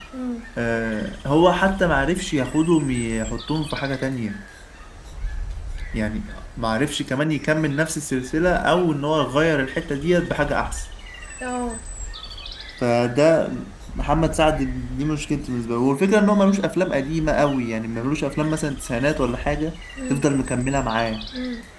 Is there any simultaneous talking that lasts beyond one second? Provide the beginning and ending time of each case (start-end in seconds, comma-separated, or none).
none